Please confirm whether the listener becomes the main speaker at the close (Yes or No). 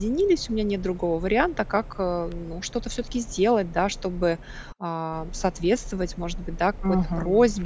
No